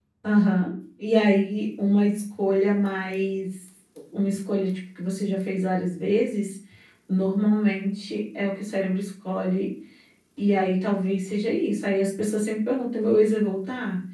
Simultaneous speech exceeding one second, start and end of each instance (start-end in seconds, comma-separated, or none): none